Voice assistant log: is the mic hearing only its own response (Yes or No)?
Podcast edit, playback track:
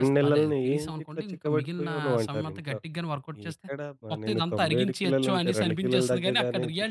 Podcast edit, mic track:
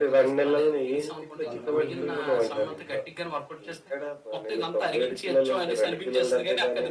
No